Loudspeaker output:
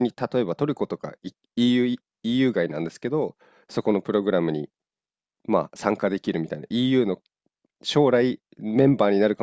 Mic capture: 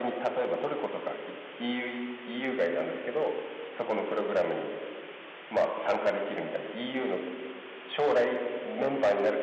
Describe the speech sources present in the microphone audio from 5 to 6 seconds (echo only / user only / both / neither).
echo only